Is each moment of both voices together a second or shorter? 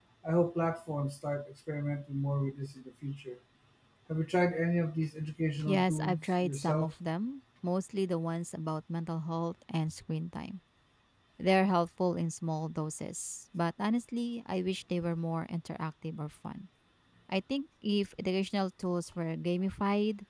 No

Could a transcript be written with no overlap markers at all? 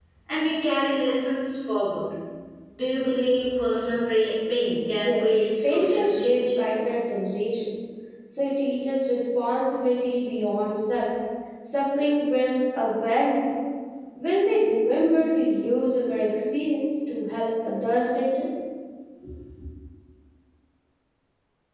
No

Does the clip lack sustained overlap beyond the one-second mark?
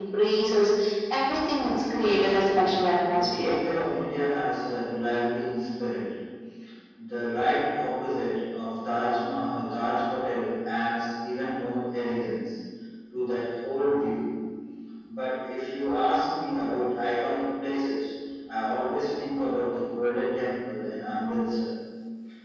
No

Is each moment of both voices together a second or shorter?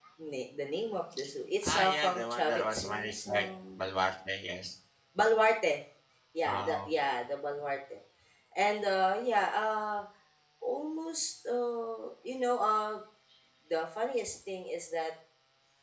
No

